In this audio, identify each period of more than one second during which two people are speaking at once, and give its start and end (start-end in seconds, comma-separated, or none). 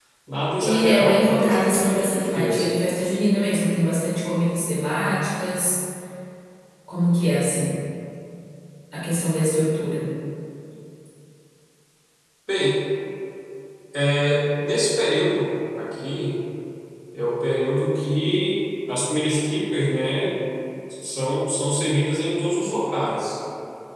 0.6-2.7